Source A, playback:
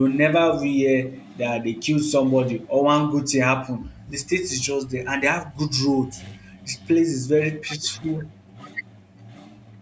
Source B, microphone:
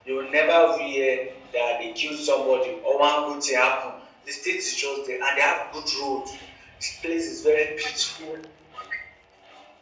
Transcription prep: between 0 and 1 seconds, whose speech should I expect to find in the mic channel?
echo only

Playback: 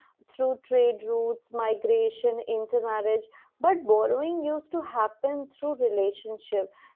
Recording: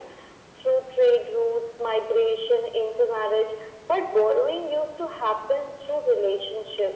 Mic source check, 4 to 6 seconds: echo only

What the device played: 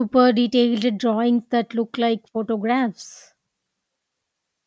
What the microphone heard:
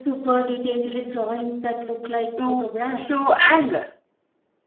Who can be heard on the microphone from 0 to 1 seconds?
echo only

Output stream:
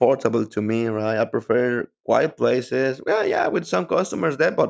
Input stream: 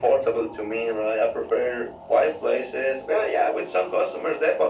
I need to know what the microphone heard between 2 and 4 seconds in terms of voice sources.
echo only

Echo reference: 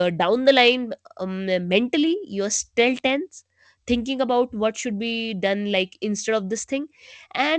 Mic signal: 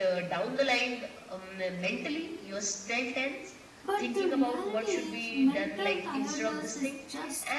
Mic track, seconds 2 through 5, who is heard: both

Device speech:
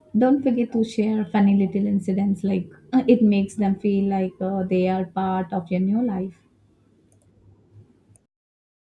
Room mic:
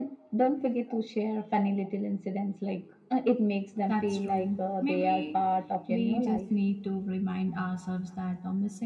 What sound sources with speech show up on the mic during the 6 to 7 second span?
both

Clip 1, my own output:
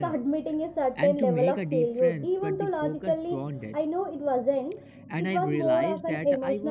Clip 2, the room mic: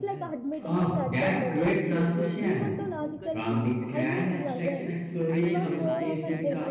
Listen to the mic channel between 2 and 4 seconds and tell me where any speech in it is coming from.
both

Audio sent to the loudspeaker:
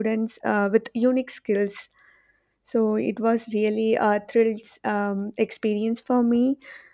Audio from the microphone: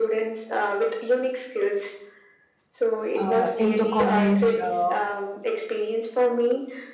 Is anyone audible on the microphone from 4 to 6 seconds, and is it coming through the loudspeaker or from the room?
both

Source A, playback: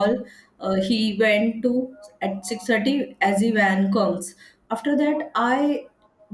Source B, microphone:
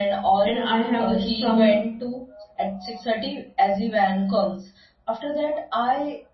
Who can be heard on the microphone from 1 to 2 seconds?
both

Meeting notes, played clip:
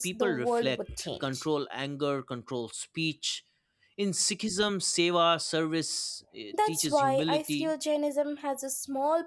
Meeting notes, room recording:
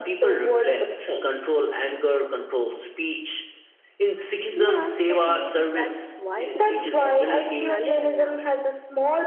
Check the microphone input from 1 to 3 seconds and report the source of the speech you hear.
echo only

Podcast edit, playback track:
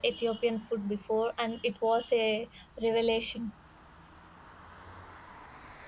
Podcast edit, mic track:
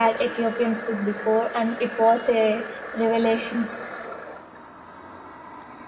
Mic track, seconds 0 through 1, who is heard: echo only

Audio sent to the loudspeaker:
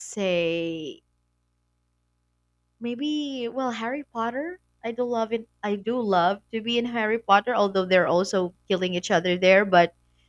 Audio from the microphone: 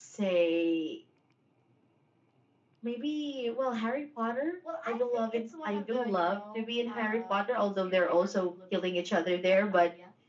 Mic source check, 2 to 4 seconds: echo only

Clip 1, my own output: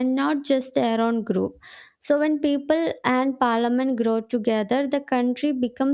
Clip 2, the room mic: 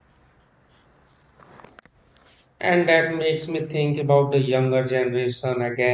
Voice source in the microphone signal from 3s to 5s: user only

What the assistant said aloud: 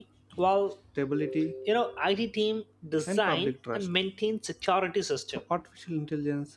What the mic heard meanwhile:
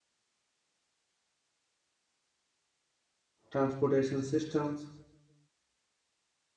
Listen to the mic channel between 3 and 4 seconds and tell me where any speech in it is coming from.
user only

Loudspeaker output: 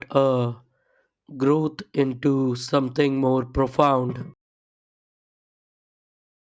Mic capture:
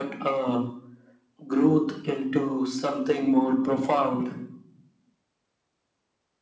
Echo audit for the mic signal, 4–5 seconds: echo only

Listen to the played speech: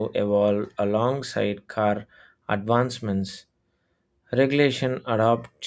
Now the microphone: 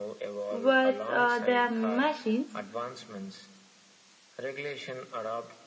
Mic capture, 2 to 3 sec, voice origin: both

